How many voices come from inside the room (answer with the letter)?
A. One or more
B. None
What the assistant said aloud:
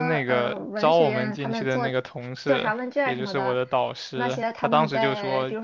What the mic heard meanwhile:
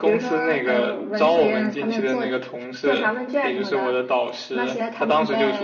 B